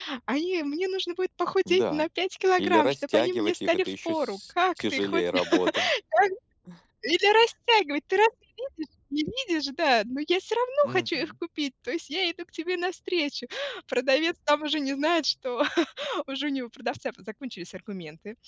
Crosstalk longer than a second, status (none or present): present